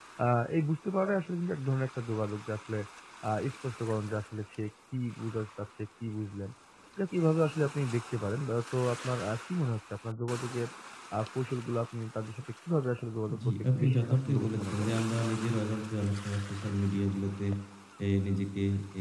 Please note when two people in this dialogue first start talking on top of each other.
13.3 s

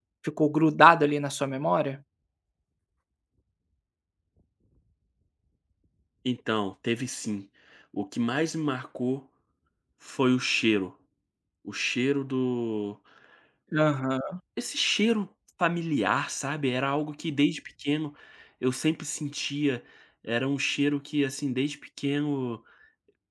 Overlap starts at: none

